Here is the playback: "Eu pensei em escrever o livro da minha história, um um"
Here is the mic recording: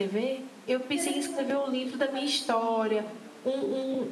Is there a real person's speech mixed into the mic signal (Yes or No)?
Yes